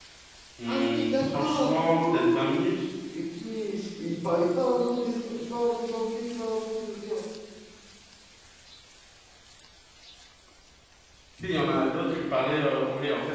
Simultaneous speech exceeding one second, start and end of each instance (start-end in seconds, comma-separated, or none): 0.7-2.5